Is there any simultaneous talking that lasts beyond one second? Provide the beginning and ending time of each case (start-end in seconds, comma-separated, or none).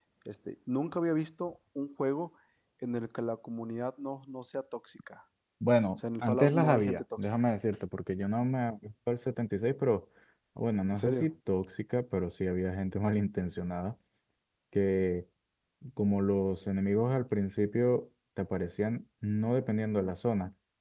6.0-7.5